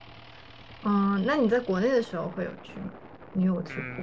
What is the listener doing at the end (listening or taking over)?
taking over